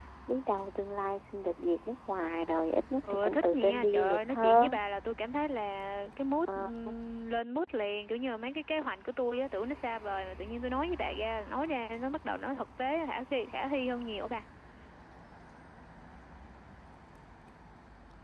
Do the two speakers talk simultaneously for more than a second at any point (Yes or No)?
Yes